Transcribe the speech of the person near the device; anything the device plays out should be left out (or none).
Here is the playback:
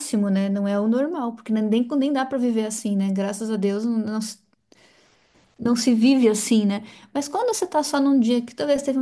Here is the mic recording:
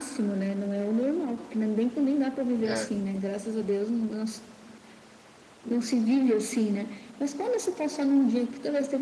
É,